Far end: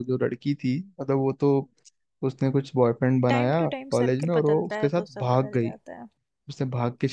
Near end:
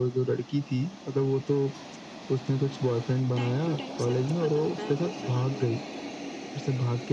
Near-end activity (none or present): none